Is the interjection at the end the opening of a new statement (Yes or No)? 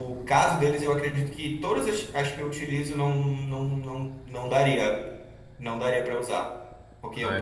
No